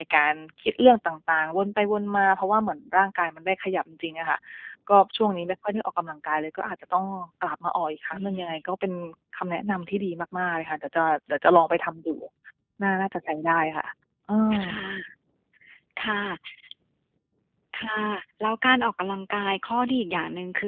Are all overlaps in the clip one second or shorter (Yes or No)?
Yes